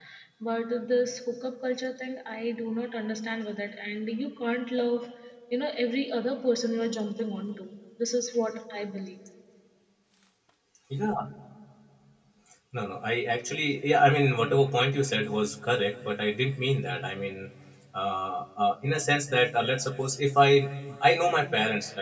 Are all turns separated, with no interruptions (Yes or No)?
Yes